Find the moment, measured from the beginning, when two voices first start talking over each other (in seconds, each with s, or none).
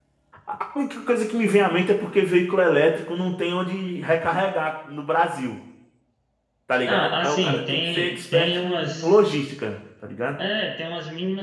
6.9 s